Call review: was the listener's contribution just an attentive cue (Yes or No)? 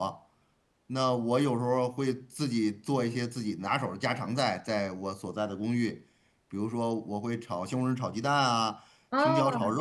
Yes